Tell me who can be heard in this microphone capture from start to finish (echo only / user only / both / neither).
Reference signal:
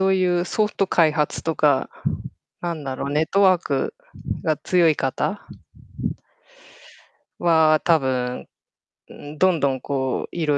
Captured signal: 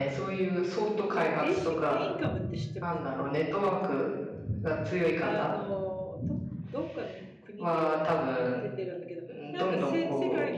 both